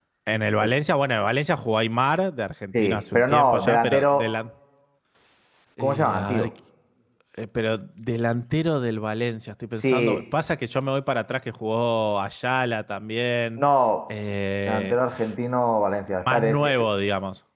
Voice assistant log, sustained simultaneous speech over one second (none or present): present